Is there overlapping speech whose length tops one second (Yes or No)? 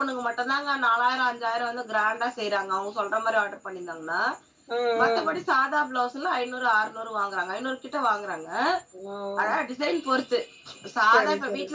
No